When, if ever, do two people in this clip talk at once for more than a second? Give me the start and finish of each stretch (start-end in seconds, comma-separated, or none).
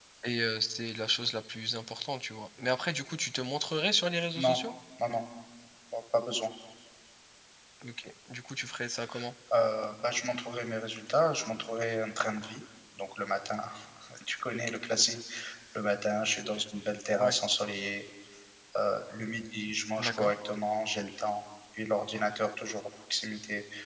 none